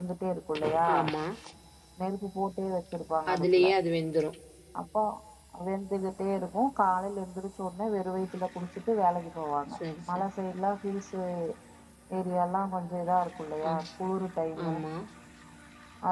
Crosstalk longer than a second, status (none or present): none